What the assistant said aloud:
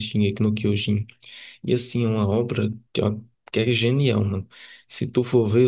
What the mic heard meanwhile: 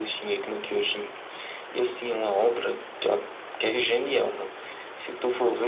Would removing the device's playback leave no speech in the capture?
Yes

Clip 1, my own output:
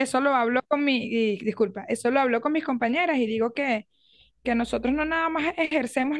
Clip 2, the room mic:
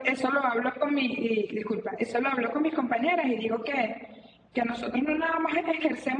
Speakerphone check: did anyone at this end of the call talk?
No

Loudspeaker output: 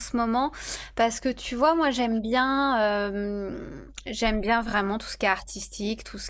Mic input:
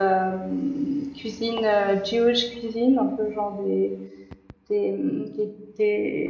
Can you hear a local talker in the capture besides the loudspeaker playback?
Yes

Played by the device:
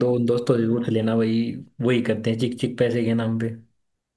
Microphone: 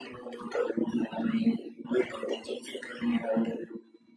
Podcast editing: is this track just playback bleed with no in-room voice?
Yes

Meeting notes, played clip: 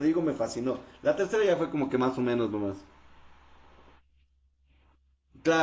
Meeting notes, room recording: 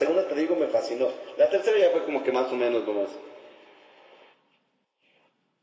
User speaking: No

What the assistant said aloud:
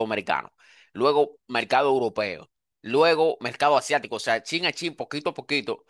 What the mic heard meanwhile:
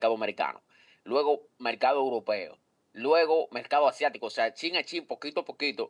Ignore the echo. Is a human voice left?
No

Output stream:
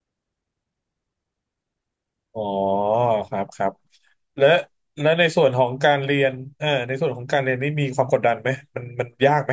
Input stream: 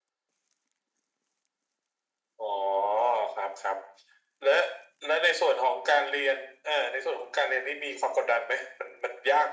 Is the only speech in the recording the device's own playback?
Yes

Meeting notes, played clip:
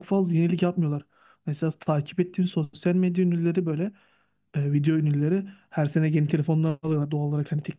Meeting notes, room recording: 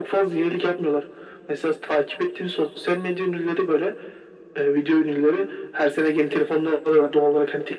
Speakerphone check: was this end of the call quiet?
Yes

